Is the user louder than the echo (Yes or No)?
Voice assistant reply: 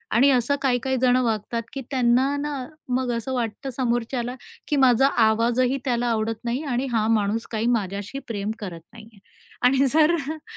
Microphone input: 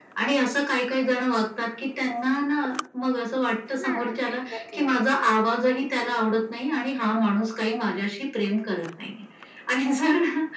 No